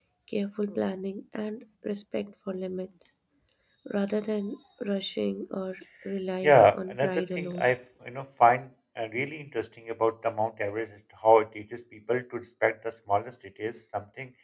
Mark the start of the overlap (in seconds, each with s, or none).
6.4 s